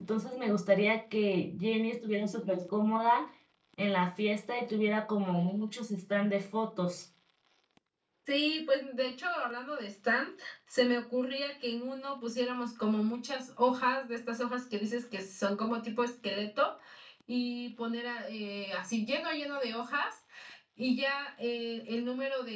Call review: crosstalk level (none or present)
none